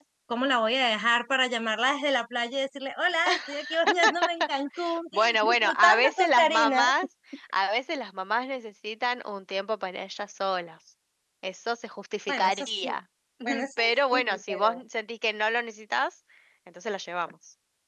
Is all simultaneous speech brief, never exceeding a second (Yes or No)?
No